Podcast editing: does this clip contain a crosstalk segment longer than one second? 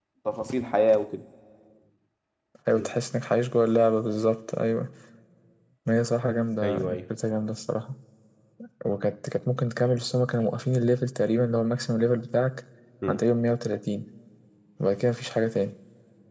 No

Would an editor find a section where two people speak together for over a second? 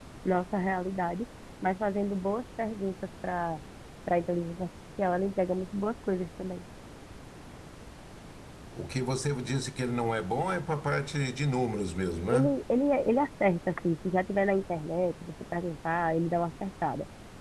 No

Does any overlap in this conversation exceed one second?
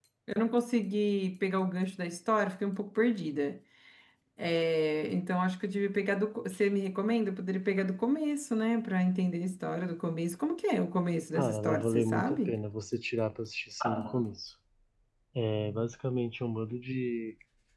Yes, from 11.4 s

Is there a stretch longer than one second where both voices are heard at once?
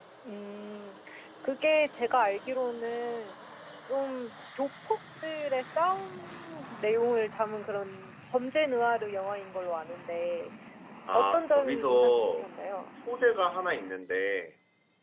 Yes, from 11.1 s

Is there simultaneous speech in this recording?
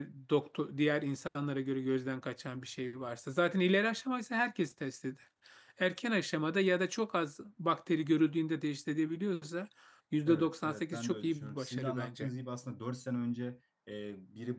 Yes, from 10.3 s

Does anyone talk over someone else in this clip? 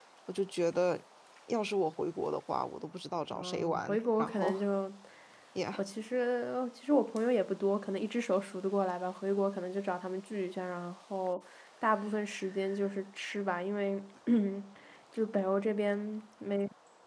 Yes, from 3.3 s

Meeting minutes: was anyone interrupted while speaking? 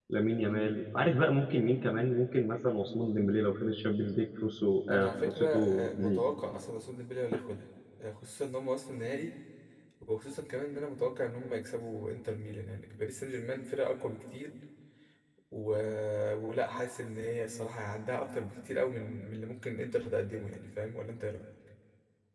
Yes, from 4.9 s

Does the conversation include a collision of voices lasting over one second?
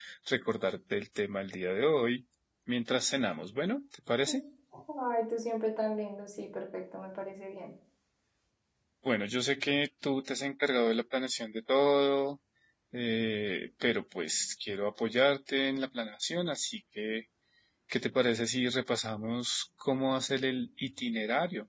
No

